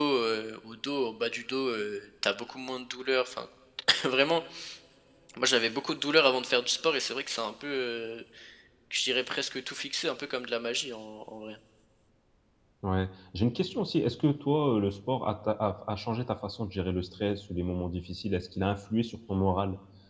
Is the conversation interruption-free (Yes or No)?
Yes